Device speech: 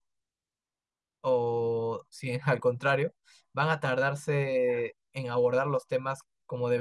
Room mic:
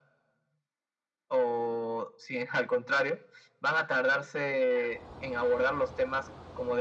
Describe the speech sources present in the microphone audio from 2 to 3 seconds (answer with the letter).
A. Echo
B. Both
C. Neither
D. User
A